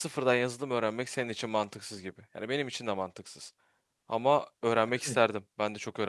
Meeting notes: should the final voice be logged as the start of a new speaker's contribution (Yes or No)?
No